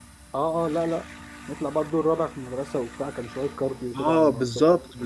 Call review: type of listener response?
taking over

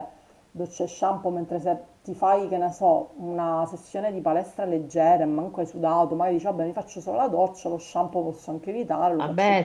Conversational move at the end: taking over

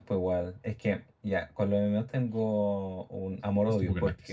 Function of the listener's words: listening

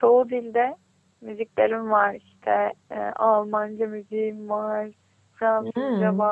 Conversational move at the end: listening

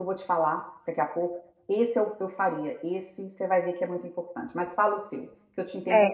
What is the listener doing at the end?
taking over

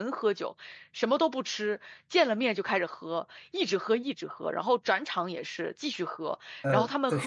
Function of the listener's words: listening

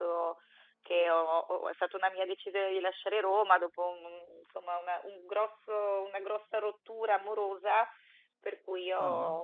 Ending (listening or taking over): listening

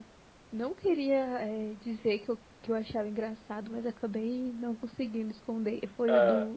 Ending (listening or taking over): listening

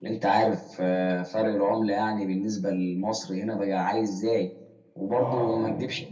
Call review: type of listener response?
listening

